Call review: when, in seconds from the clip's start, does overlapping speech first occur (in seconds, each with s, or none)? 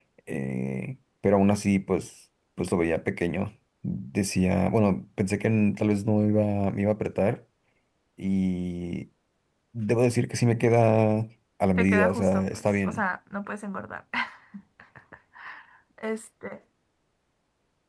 11.8 s